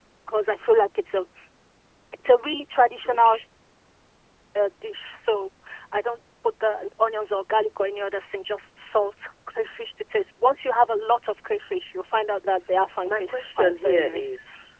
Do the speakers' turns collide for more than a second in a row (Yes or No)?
Yes